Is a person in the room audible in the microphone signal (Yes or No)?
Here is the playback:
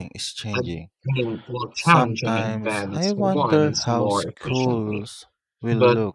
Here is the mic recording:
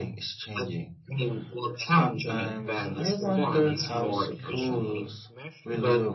Yes